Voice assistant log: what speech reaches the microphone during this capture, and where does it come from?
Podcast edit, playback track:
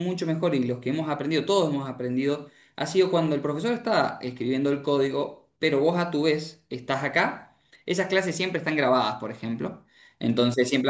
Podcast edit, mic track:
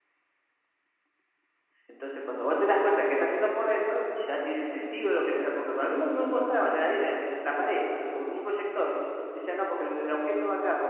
user only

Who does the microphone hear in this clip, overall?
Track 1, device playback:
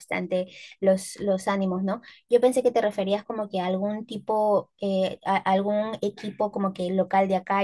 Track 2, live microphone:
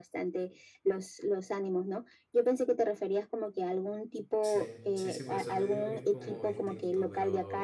both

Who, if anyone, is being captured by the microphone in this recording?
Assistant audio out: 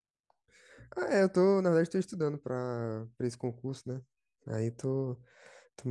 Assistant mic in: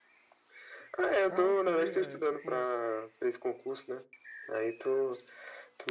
both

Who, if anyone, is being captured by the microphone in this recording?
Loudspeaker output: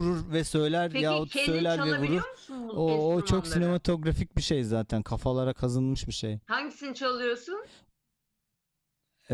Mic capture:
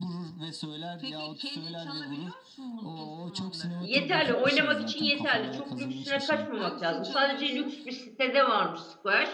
both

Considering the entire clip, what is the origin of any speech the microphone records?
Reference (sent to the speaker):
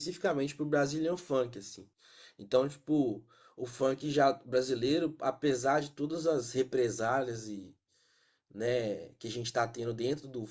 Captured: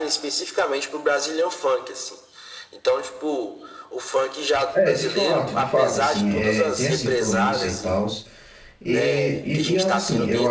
both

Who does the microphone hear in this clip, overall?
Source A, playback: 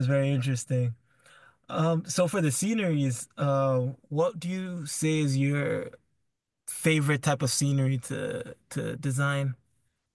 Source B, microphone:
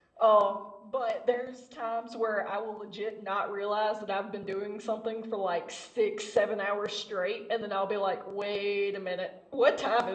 user only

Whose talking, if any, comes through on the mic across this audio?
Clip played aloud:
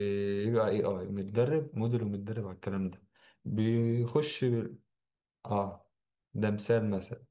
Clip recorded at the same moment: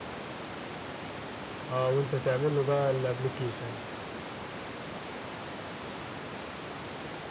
user only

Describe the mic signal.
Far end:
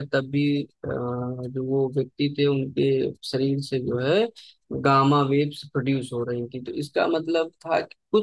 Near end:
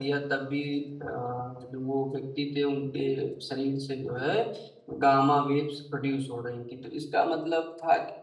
echo only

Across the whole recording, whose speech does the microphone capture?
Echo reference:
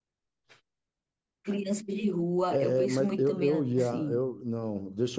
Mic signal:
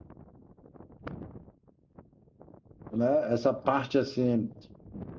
user only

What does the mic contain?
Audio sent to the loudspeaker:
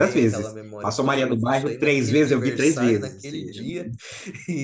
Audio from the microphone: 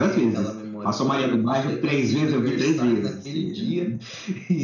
echo only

